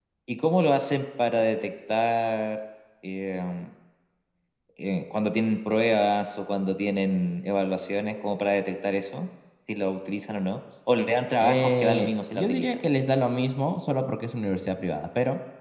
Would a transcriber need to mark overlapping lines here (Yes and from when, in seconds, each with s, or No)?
Yes, from 11.4 s